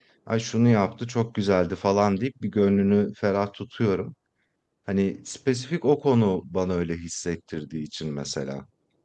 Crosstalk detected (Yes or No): No